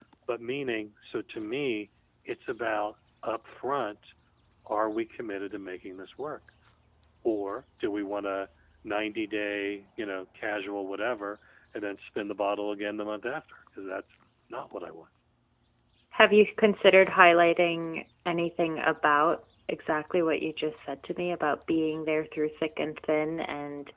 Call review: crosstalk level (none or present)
none